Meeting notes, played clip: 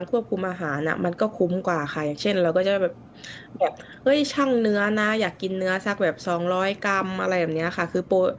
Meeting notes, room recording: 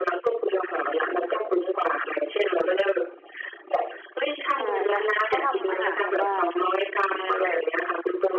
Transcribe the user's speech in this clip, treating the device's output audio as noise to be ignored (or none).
ใช่แต่เขาทำอาหารแบบว่า